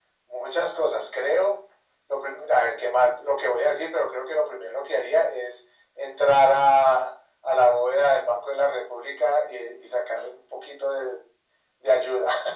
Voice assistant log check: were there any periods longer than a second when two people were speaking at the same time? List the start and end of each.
none

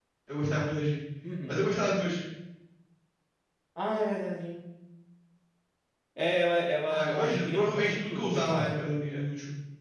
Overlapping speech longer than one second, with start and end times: 6.9-8.7

